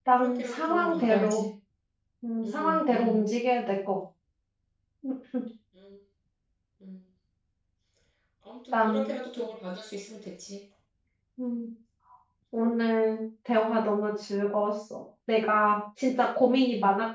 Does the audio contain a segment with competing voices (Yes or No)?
Yes